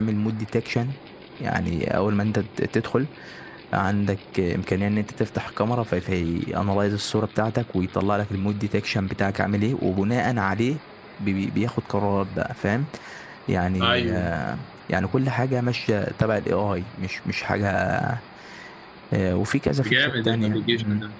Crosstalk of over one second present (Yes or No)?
Yes